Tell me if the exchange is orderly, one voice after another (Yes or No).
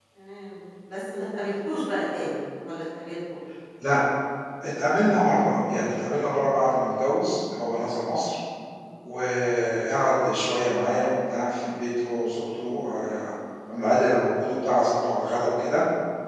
Yes